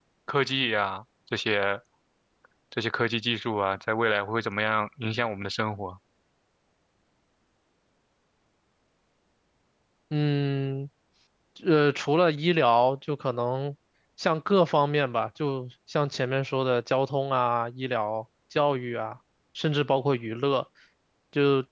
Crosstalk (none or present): none